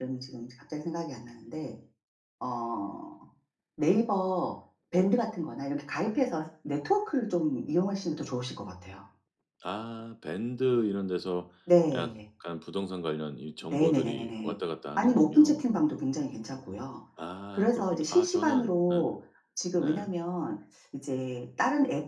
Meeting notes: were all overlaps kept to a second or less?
No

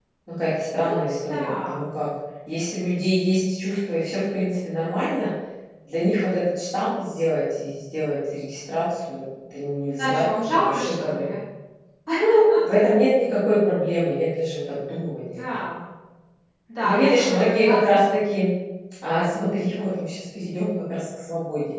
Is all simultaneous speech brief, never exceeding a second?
No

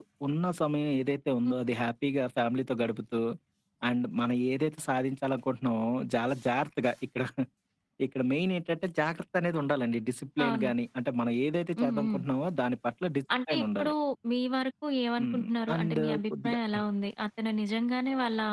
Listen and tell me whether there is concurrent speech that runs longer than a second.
Yes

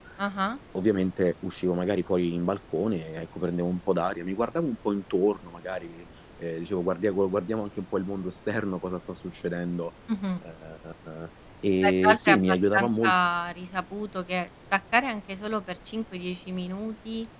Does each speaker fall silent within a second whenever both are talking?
No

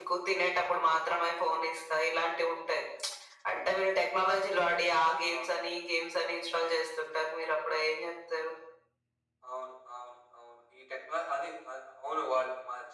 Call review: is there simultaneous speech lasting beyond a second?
No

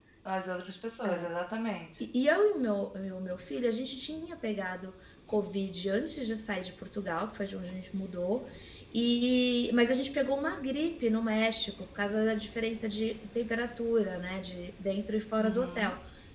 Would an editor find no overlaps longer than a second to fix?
Yes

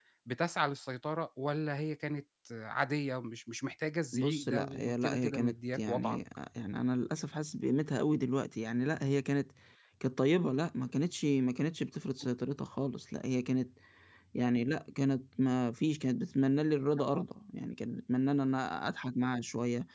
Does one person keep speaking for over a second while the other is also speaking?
Yes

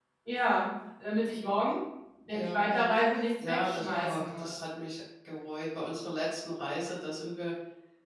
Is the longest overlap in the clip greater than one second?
Yes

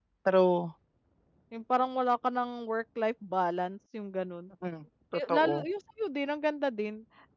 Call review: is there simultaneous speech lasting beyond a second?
No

